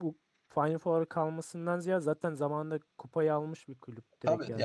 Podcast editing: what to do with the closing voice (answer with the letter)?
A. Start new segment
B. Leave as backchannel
A